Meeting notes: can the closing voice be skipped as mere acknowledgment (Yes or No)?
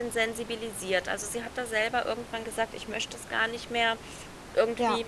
Yes